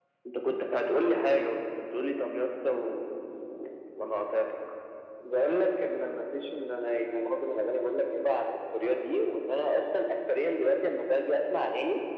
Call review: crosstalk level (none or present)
none